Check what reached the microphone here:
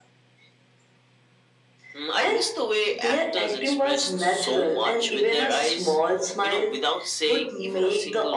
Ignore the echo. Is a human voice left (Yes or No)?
No